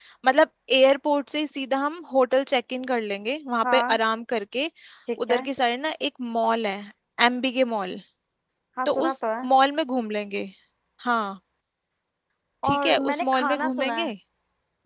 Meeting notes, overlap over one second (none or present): present